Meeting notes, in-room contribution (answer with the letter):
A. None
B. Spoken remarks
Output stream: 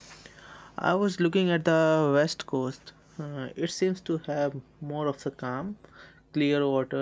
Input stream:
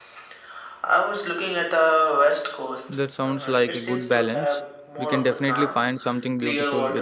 B